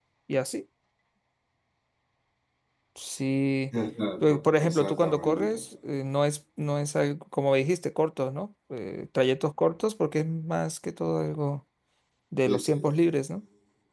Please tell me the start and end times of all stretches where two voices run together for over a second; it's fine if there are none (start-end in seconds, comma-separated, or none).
4.2-5.6